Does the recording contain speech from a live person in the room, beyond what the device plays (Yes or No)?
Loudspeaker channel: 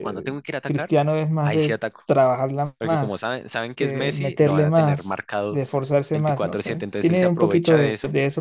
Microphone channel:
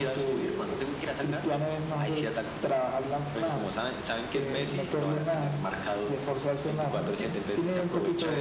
No